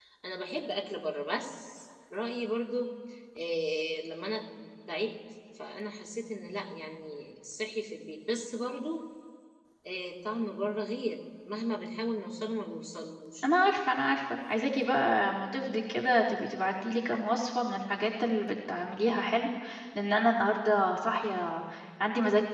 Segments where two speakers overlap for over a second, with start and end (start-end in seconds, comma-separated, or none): none